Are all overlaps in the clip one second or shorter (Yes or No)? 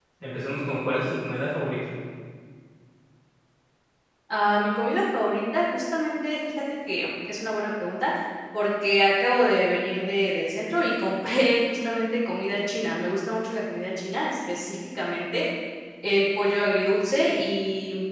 Yes